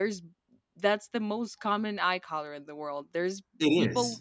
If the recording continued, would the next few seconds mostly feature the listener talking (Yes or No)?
No